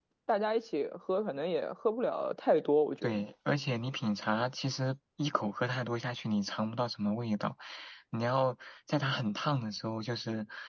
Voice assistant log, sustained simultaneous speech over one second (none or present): none